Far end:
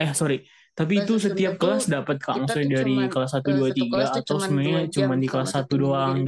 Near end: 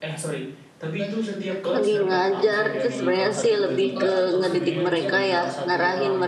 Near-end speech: present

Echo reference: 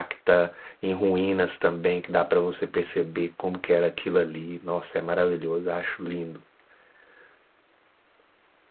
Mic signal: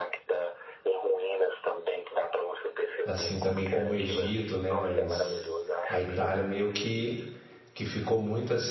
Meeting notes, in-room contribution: present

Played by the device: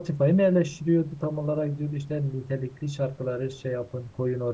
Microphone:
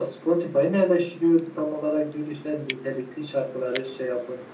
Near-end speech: none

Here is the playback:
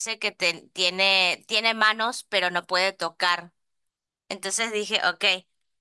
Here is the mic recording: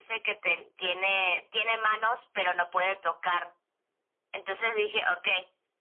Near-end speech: none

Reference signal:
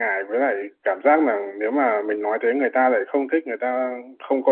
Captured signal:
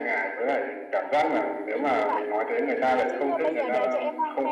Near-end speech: present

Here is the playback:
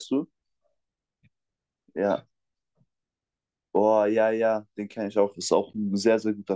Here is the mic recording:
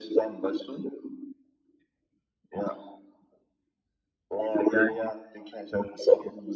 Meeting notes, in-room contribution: none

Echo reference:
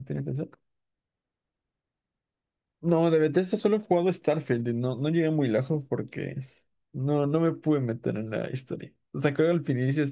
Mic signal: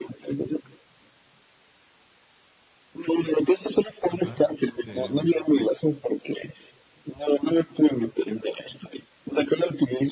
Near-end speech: present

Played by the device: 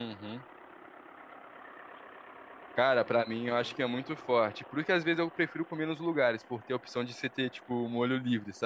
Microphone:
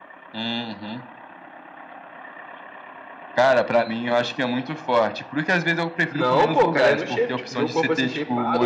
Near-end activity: present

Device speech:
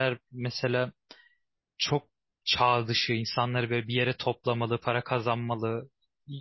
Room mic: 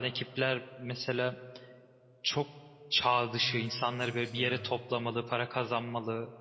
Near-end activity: present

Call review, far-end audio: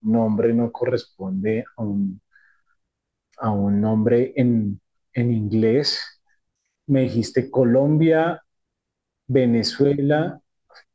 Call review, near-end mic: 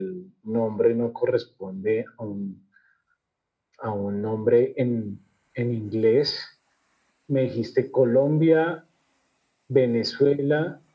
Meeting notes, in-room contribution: none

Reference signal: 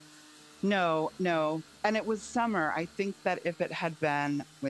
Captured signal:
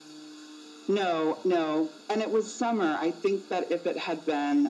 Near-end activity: none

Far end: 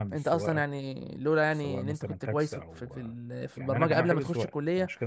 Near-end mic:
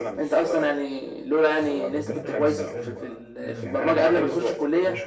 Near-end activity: present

